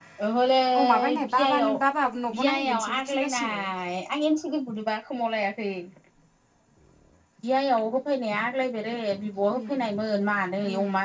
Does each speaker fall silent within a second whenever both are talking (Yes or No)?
No